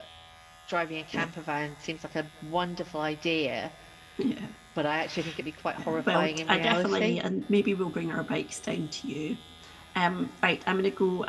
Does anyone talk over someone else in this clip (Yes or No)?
Yes